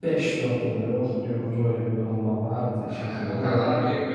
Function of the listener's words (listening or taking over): taking over